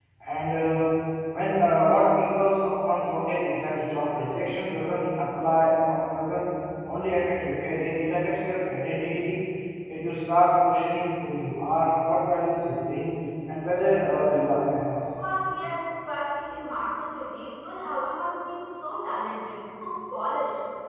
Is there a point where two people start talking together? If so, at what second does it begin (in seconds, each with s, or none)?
none